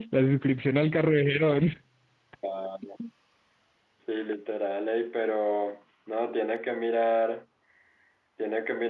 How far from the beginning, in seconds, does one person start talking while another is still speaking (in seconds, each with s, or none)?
none